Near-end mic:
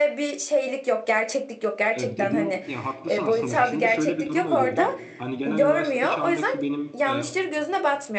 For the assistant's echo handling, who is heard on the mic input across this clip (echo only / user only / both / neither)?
both